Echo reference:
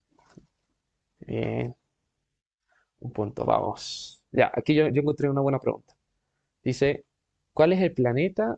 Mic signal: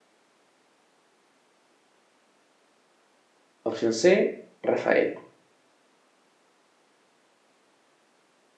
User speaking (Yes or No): Yes